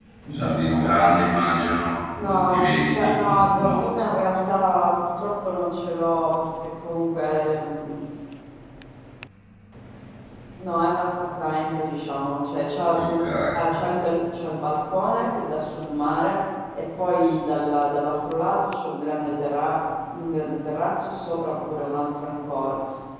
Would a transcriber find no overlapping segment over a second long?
No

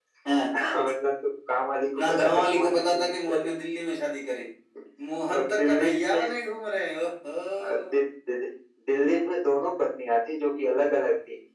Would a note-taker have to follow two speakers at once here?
Yes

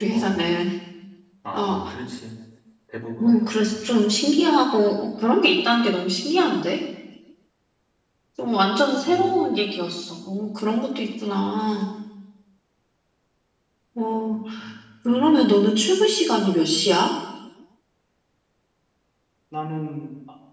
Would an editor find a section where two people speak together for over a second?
No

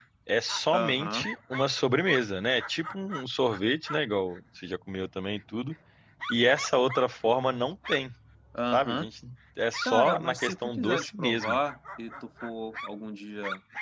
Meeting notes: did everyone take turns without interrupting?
No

